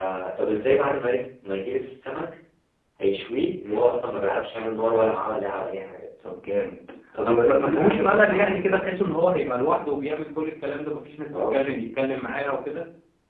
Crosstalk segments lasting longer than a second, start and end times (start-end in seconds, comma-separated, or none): 7.2-8.8